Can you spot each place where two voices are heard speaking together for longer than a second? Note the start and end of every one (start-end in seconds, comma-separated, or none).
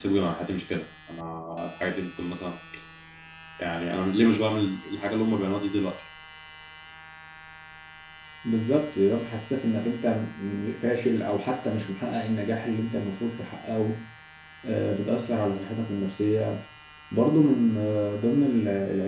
none